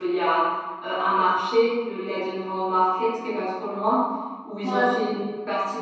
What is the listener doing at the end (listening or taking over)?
listening